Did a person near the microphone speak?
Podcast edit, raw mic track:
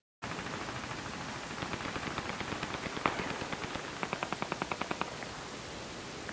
No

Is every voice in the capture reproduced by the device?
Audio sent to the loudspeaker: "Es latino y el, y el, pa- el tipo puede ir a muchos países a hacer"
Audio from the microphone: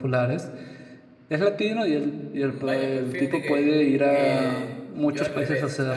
No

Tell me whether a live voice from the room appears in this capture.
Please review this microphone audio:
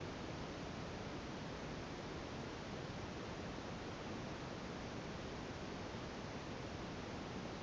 No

